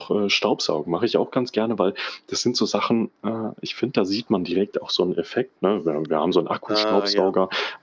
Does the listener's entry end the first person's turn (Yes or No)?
No